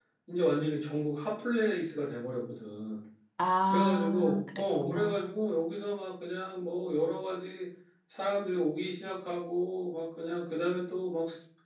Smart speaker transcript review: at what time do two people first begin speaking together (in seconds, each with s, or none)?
3.7 s